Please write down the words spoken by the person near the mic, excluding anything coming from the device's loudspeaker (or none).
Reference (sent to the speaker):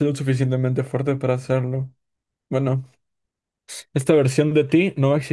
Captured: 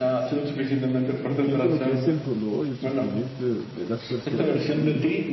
entiendo lo que es el dolor y el sufrimiento de, de las personas y